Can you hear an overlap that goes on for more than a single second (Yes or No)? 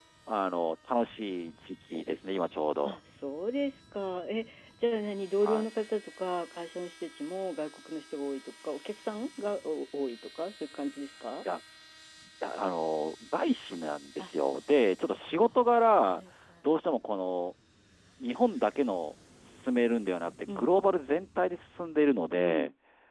No